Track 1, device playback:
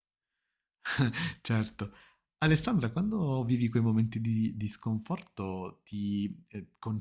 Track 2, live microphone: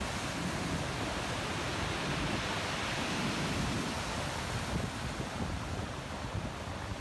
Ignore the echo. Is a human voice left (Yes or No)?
No